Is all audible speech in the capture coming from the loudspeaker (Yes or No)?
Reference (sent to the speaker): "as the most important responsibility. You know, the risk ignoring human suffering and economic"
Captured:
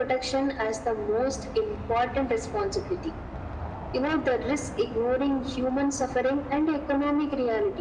Yes